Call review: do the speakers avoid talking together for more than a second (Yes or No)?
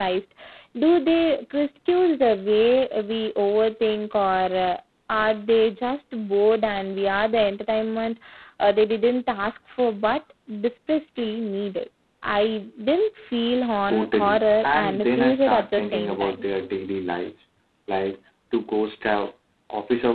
No